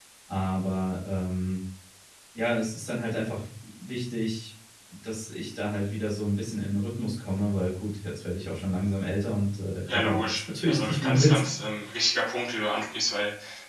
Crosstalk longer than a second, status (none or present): present